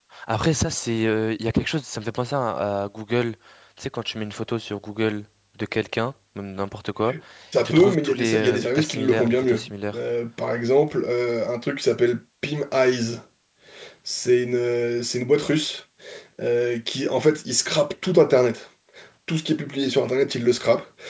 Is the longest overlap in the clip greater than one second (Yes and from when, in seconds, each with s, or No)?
Yes, from 7.6 s